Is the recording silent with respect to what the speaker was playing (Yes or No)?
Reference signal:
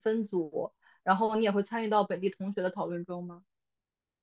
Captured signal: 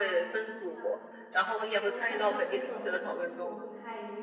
No